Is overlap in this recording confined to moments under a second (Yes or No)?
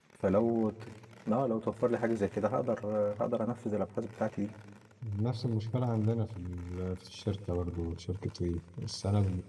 Yes